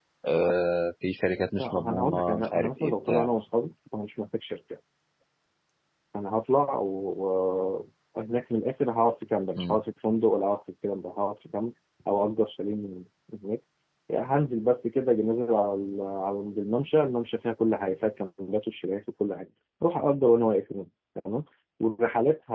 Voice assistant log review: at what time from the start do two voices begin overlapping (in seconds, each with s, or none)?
1.6 s